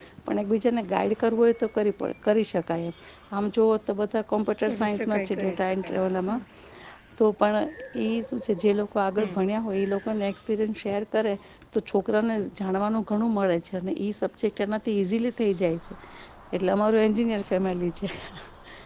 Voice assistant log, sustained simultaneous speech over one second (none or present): present